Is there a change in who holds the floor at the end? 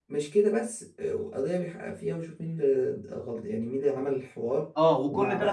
Yes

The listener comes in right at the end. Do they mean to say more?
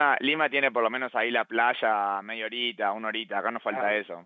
Yes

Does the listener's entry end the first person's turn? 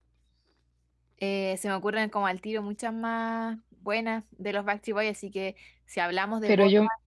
No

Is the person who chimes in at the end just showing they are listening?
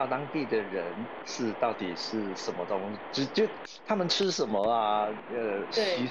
Yes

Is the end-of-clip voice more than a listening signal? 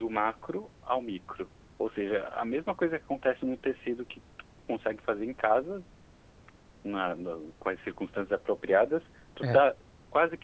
No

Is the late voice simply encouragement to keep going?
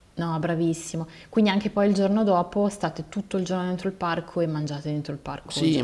No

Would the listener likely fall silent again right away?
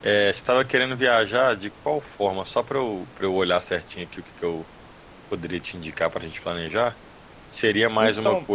Yes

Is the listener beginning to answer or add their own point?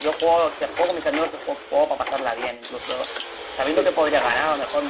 No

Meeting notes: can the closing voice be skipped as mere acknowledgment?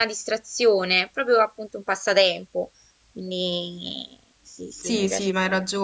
No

